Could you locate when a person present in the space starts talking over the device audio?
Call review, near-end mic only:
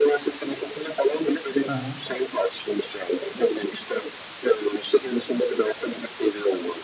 2 s

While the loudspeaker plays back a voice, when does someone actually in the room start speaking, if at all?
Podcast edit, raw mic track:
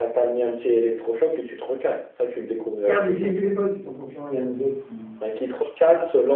3 s

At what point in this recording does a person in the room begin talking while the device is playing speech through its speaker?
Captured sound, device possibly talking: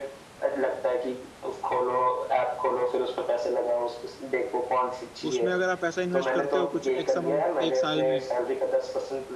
5 s

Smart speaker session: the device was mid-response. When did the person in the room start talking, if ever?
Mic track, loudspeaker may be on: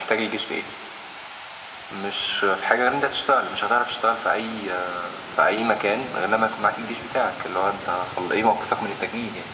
none

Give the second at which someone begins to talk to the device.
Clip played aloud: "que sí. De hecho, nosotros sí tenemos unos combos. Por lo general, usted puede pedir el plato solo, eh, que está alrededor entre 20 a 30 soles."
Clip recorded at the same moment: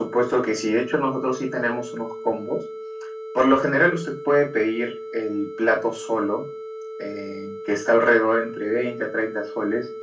none

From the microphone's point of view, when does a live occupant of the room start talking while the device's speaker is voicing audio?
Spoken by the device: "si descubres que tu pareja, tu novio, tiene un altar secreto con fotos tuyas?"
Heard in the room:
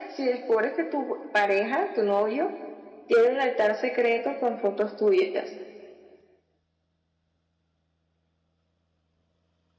none

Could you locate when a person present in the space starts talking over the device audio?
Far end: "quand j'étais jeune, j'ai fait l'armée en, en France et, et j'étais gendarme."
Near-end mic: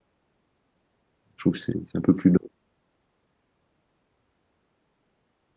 1 s

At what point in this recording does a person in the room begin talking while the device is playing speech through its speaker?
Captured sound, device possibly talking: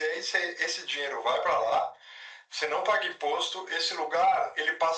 none

